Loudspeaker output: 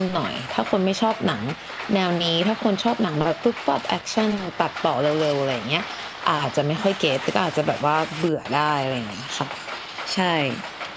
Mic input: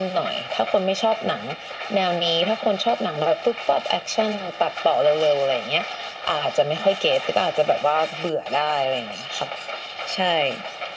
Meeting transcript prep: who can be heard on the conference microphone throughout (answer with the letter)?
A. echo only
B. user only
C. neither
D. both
A